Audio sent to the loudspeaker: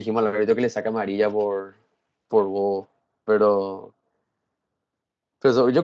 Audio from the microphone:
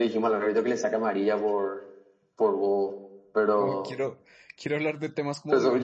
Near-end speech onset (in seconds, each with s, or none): 3.5 s